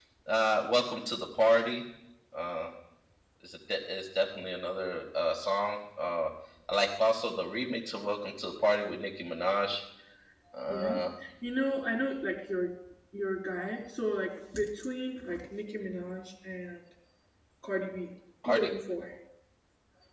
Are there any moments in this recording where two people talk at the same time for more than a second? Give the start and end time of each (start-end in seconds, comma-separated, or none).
none